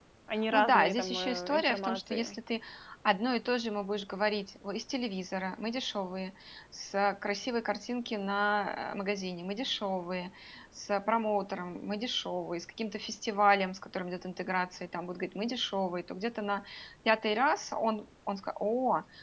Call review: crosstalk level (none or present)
present